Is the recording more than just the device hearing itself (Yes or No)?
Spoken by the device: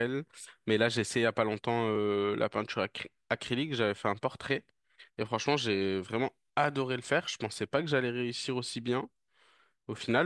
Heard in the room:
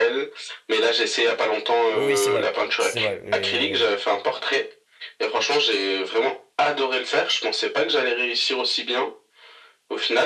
Yes